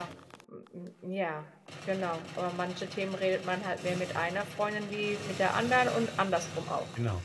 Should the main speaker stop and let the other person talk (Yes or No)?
Yes